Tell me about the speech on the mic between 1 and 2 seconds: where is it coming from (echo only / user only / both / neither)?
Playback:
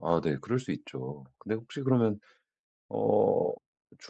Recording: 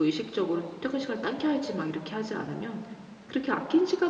user only